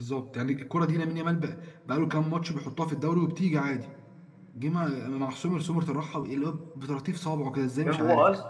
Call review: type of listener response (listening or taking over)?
taking over